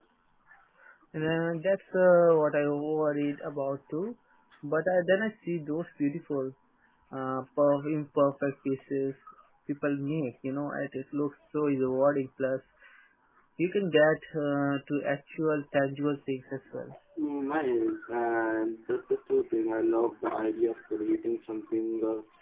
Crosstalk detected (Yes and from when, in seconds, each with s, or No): No